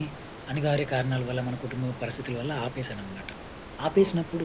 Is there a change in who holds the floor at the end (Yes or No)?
No